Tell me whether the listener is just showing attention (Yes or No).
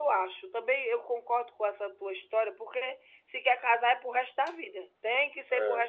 No